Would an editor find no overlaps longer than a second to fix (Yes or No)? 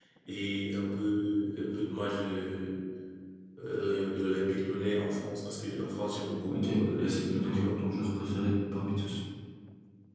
No